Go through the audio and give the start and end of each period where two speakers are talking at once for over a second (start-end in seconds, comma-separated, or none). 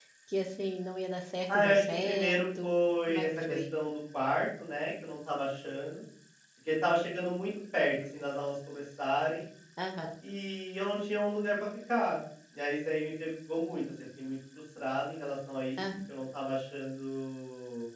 1.5-3.6